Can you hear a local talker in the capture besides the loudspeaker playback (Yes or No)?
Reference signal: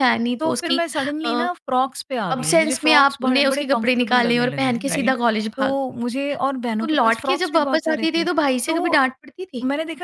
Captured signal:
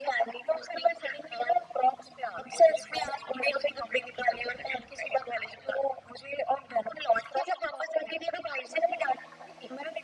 No